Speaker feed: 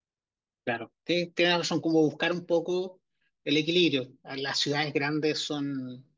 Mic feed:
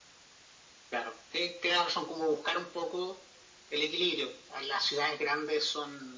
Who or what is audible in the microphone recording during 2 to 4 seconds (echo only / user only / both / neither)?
echo only